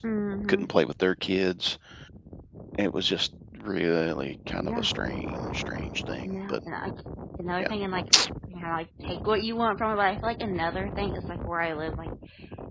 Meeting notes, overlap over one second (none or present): none